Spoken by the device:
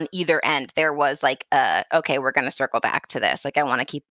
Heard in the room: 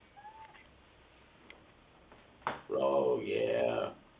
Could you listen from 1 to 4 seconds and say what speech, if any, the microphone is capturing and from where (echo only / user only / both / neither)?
user only